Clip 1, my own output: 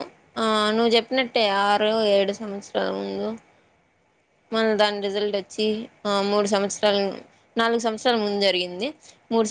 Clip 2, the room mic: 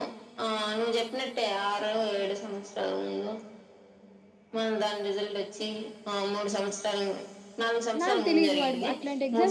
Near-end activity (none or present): present